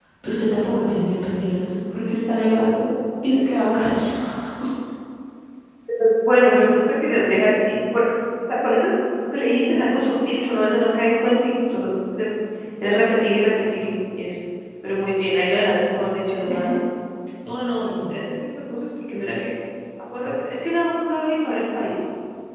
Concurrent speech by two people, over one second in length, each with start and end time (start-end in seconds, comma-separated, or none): none